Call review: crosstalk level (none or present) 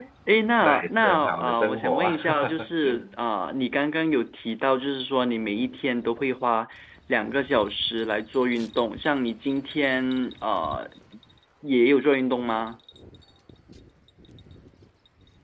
present